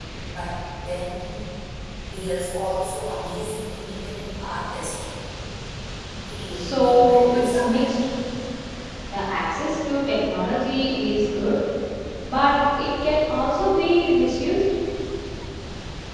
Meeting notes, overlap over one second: present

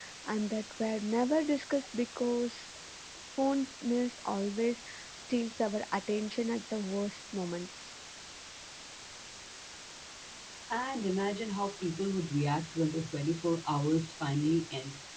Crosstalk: none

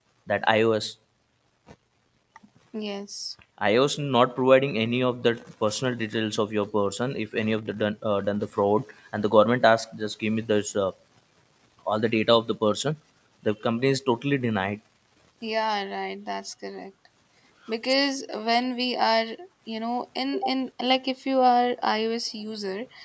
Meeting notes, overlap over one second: none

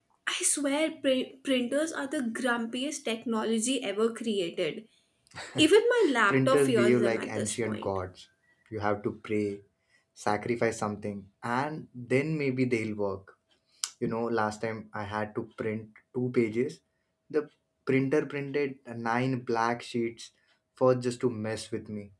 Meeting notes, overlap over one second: present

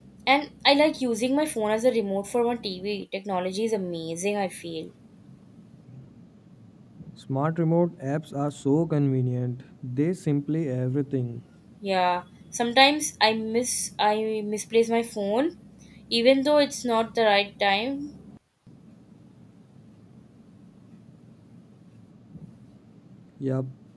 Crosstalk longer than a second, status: none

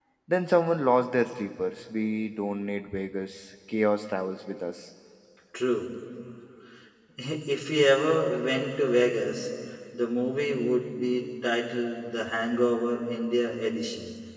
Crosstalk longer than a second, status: none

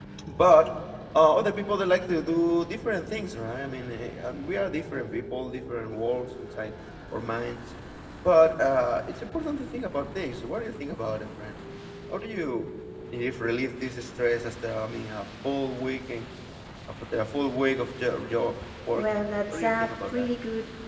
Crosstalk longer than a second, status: present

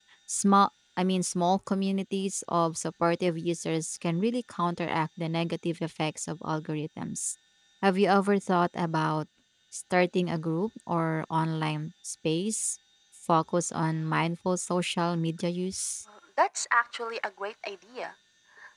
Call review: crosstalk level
none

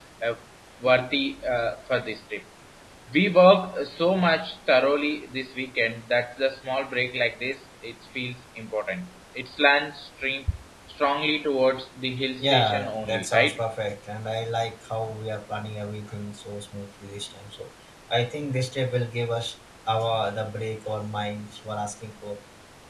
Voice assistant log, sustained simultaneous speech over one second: present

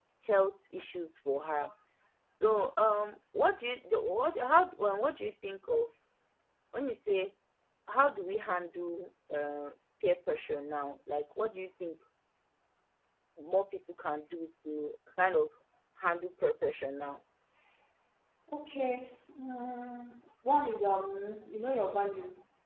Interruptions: none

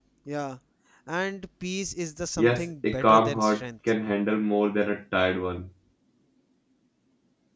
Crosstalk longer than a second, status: present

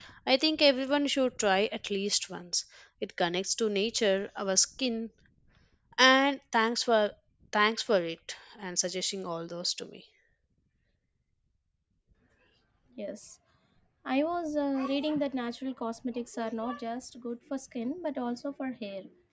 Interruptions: none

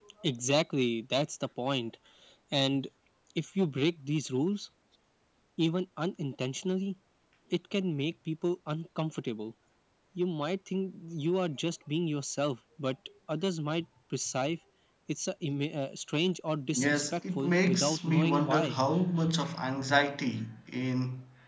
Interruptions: present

